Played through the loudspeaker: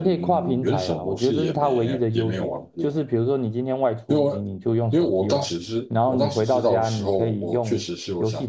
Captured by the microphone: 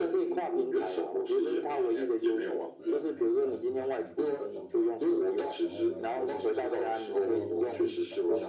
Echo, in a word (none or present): present